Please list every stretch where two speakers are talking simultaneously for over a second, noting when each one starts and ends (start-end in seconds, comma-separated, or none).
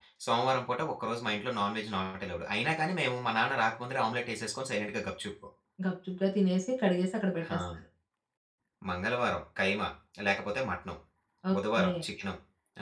none